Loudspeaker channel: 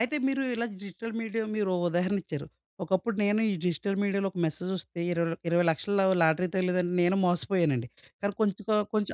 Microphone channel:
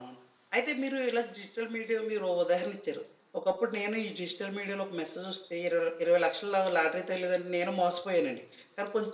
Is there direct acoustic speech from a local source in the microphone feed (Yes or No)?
No